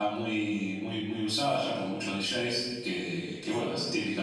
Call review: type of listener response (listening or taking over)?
listening